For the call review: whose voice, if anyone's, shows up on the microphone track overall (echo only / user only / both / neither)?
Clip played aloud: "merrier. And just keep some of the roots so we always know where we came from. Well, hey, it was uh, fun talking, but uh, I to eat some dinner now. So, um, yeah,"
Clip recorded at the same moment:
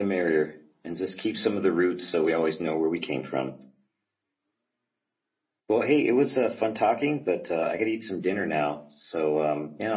echo only